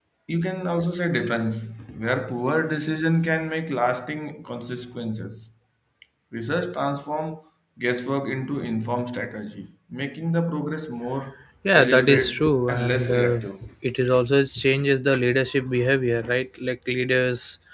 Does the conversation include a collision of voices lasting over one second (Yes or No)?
Yes